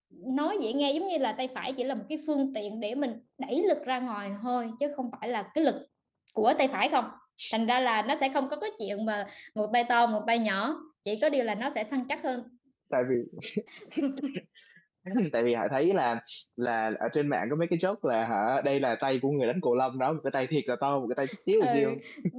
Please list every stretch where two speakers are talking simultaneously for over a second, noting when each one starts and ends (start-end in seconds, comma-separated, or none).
none